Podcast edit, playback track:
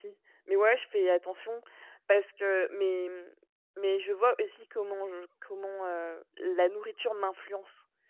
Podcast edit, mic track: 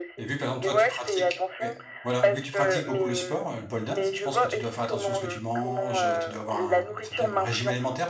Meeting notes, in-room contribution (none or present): present